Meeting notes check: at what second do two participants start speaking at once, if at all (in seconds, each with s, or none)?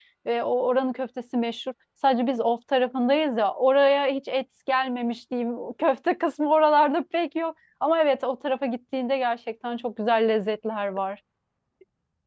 none